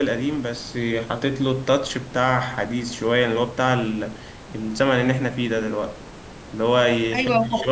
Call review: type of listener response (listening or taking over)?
listening